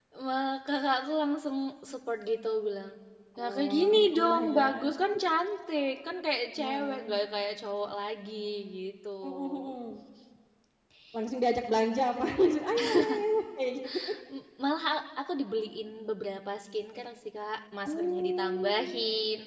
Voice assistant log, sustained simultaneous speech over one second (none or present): present